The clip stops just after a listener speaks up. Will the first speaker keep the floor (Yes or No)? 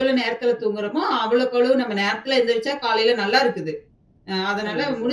Yes